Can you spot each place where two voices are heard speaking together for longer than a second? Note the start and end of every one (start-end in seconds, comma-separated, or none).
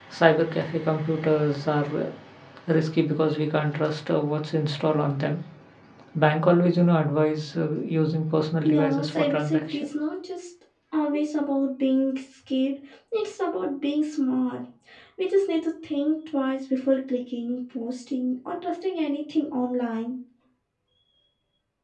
8.6-9.9